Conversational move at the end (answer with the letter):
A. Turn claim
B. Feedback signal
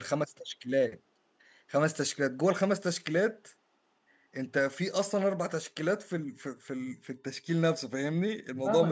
A